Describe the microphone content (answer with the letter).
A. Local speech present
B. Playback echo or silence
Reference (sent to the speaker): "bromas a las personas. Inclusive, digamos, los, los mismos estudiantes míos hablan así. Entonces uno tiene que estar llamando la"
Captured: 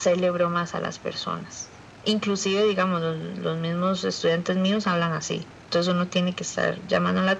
B